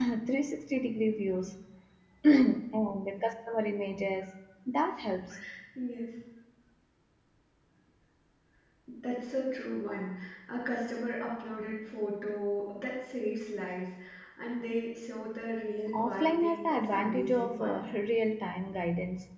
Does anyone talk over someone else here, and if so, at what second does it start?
15.9 s

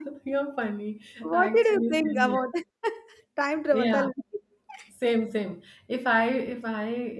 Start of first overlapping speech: 1.2 s

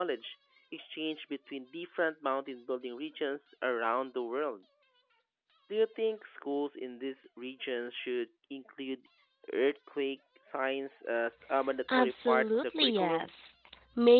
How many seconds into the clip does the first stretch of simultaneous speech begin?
11.9 s

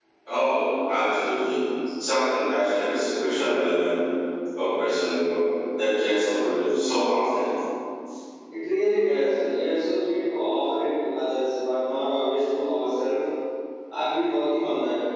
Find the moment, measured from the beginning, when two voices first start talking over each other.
none

